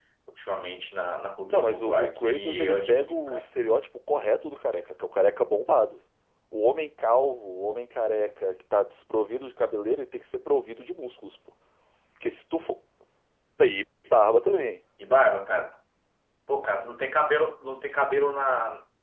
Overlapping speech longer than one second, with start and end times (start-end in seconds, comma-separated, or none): 1.5-3.5